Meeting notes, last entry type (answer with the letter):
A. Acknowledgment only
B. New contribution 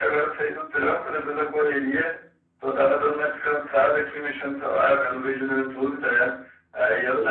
A